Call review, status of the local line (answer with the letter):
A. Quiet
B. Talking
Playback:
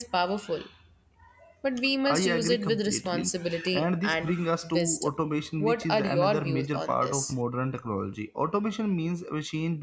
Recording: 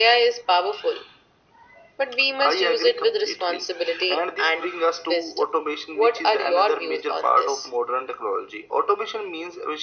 A